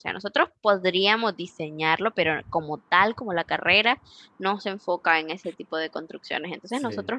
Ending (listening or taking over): listening